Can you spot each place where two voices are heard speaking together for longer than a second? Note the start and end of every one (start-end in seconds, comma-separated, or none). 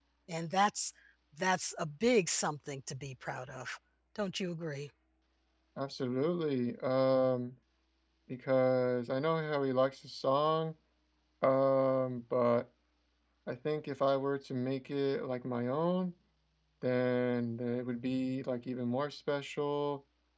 none